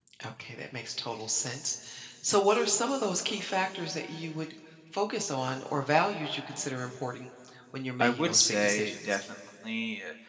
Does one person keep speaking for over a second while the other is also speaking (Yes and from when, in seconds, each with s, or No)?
Yes, from 8.0 s